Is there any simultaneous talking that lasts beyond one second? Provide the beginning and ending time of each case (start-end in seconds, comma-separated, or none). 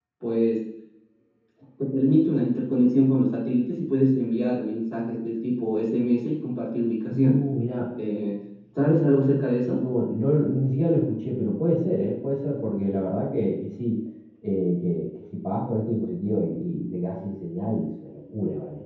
none